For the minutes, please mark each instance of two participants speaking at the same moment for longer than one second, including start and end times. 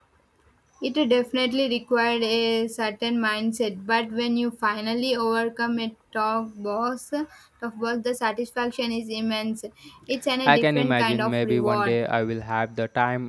10.5-12.0

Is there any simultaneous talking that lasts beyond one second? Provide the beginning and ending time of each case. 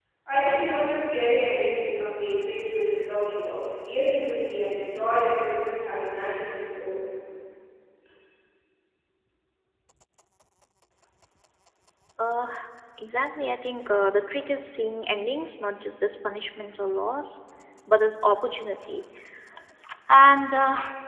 none

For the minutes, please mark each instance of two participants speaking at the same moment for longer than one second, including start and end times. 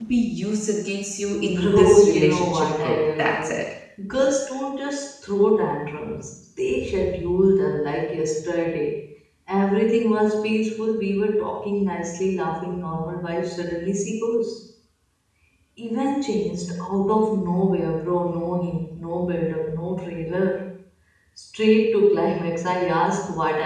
1.4-3.5

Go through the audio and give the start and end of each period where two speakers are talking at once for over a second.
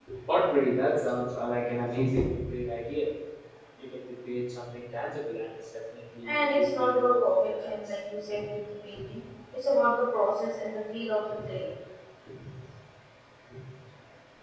6.2-7.7

